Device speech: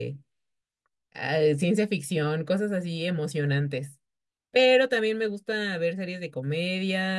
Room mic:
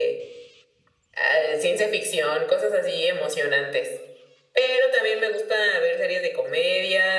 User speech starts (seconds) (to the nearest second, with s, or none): none